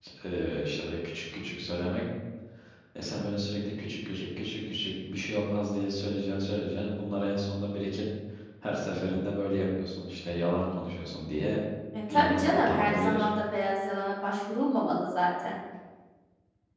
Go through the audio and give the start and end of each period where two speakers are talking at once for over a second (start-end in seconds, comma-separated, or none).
12.1-13.3